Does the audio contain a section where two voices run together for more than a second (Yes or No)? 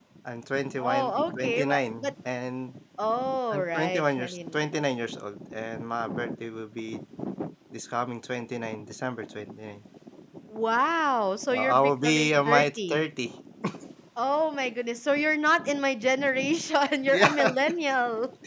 Yes